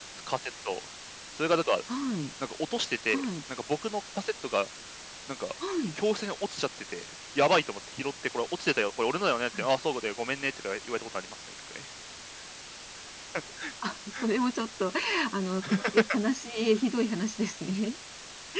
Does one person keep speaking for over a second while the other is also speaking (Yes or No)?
No